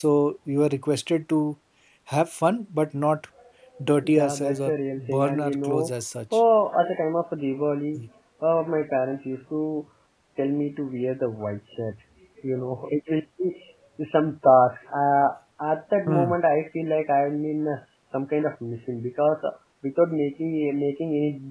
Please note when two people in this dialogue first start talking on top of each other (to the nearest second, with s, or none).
4 s